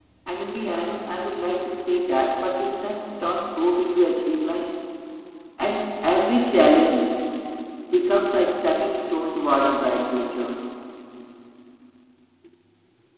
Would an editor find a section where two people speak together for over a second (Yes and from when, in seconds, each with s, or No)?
No